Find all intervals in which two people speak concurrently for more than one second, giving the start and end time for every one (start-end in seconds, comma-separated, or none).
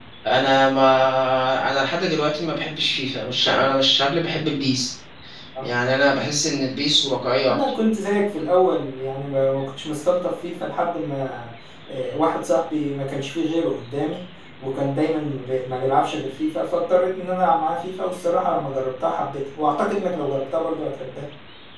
none